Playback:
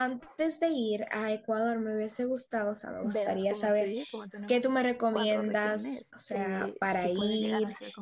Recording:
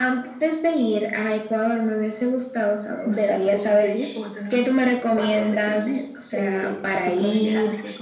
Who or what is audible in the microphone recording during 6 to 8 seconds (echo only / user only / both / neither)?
echo only